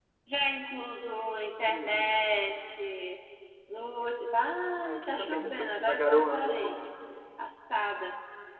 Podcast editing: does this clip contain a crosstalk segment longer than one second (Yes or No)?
Yes